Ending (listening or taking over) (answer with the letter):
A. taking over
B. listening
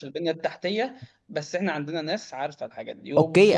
A